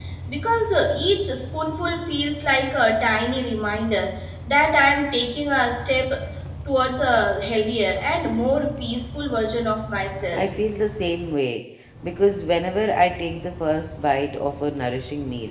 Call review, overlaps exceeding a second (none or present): none